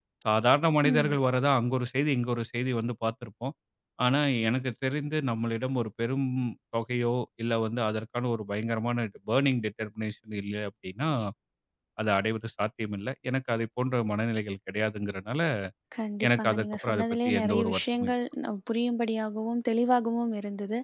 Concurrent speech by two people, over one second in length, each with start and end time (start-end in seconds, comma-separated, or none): 16.3-18.1